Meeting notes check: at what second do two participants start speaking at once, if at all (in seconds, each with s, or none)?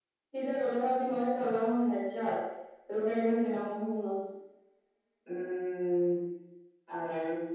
none